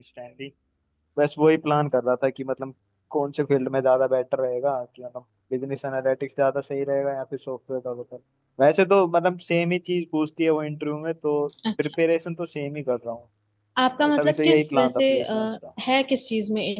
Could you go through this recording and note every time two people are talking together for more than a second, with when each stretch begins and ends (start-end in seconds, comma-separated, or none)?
14.1-15.5